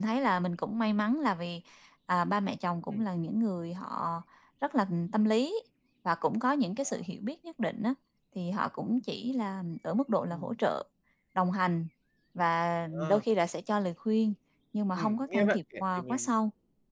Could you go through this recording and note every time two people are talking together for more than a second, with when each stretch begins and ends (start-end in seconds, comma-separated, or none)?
14.9-16.3